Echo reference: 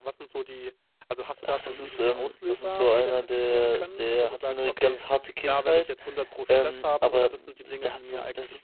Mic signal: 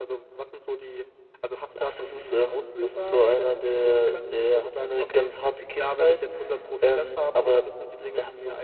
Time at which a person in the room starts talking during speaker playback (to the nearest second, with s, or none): none